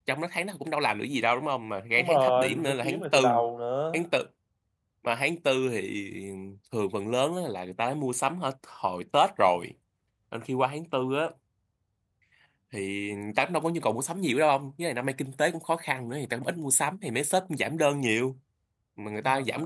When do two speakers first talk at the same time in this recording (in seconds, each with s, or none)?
2.0 s